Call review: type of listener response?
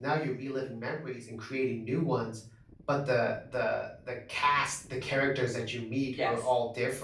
listening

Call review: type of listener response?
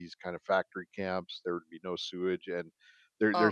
listening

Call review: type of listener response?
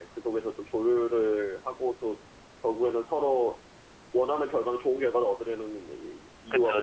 taking over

